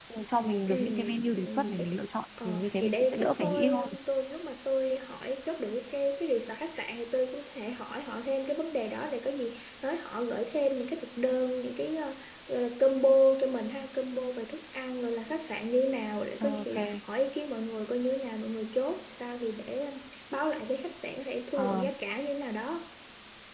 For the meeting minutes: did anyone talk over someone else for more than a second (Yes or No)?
Yes